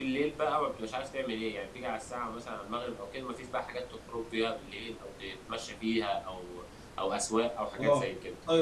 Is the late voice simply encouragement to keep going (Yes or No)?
No